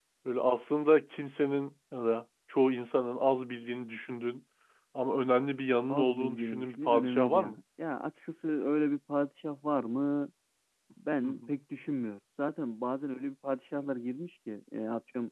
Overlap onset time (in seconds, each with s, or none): 5.9 s